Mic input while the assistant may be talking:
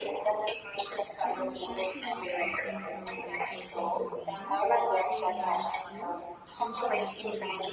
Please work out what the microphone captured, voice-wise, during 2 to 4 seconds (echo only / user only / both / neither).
both